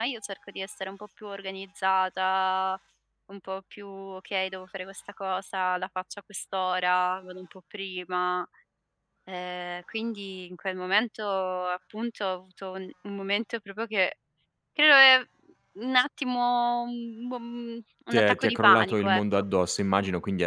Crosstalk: present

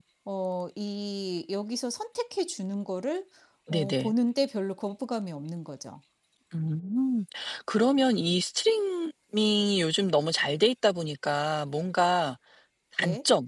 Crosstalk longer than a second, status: none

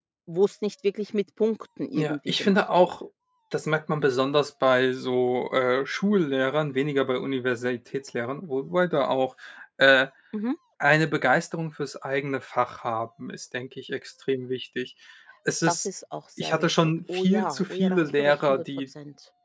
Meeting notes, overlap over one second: present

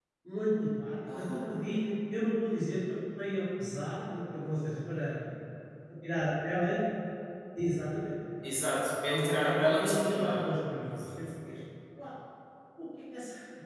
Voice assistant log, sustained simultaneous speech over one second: present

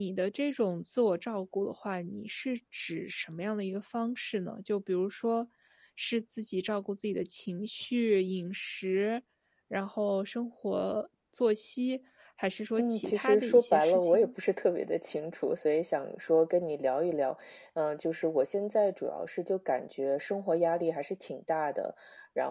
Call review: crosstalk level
present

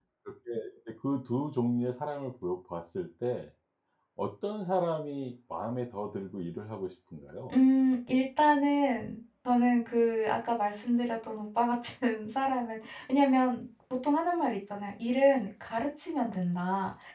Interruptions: none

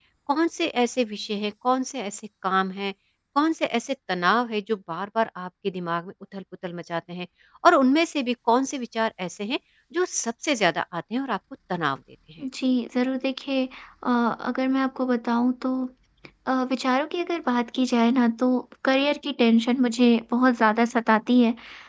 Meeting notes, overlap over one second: none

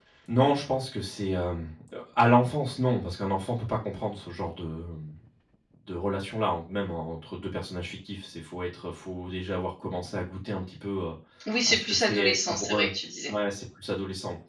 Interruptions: present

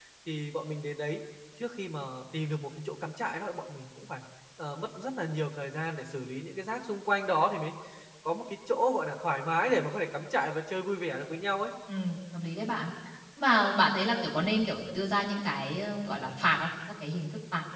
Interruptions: none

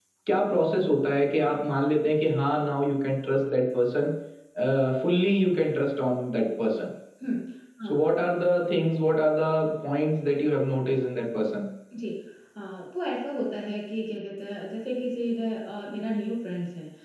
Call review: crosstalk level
none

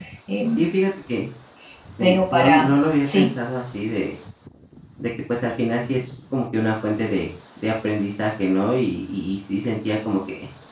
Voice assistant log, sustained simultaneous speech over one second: present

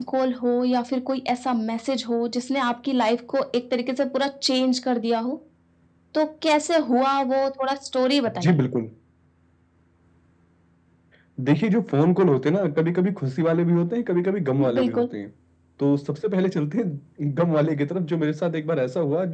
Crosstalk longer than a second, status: none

